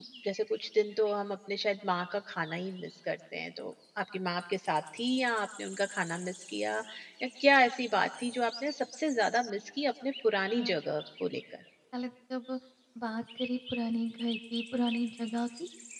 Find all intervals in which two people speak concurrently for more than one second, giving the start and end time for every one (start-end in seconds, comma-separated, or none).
none